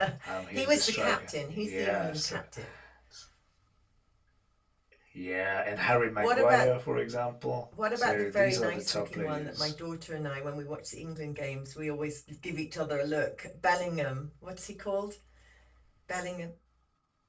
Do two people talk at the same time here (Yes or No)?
Yes